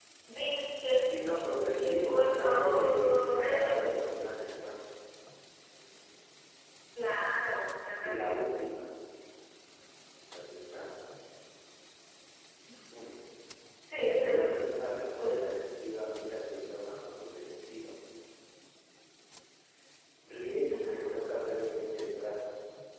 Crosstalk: present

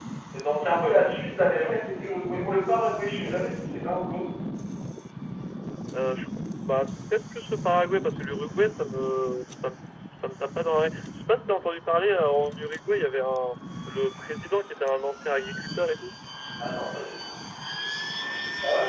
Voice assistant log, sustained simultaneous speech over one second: none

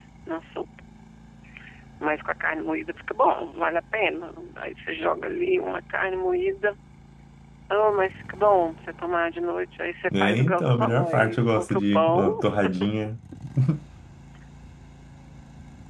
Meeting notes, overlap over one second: present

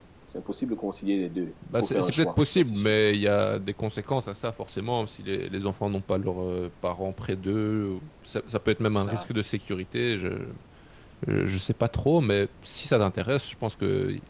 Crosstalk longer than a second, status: present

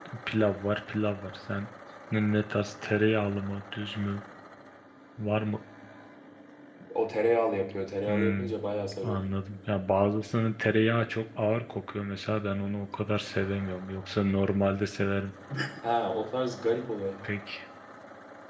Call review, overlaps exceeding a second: none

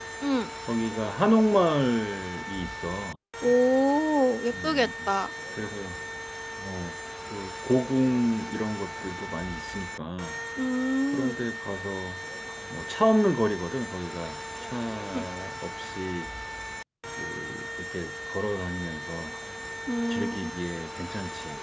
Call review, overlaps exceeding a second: none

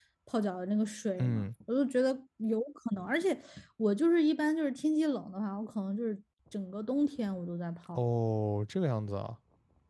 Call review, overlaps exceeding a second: none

